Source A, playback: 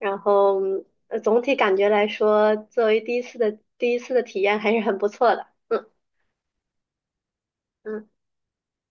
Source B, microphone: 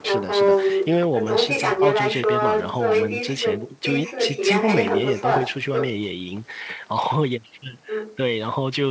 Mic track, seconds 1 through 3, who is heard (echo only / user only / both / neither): both